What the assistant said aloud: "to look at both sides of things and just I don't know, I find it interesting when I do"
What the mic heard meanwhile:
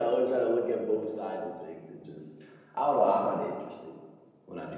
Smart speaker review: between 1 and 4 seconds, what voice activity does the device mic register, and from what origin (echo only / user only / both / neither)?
echo only